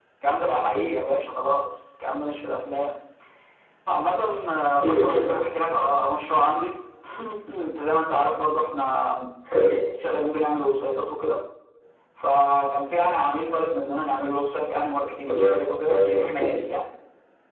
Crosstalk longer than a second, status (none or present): present